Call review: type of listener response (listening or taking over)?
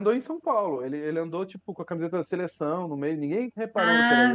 taking over